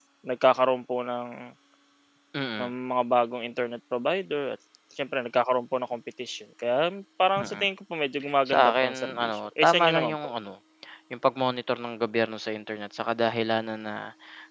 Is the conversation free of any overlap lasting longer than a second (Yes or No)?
No